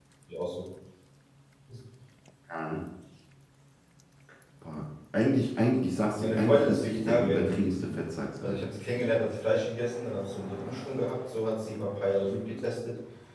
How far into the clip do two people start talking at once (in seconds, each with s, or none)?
6.1 s